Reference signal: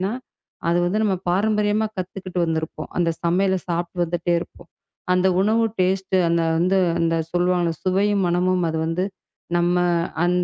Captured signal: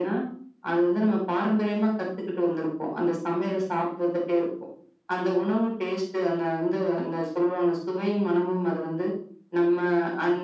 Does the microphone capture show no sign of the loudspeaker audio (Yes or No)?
No